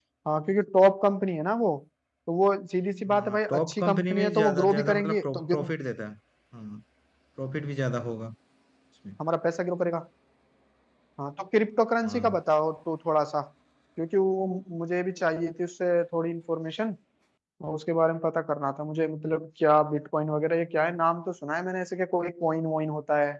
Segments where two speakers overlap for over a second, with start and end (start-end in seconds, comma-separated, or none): 3.1-5.7